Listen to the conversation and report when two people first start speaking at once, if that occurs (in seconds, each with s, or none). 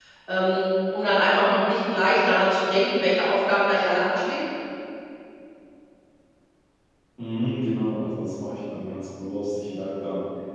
none